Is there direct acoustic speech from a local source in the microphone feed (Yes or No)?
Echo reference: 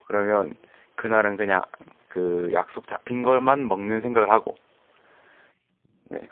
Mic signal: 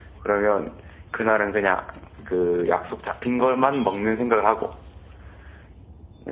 No